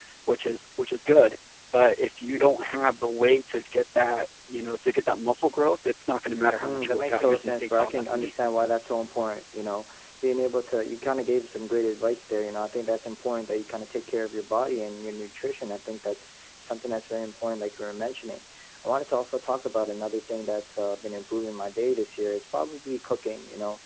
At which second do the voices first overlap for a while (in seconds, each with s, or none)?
6.6 s